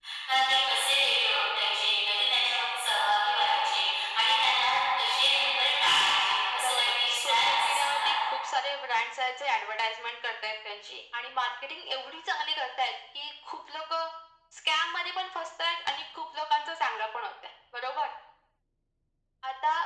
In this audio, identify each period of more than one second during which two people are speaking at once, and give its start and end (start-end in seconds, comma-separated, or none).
6.5-8.1